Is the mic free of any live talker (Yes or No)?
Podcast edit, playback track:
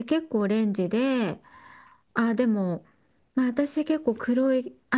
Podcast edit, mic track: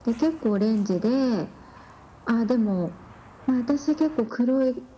Yes